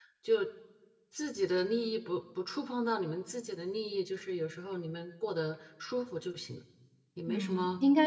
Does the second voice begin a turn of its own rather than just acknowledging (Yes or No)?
Yes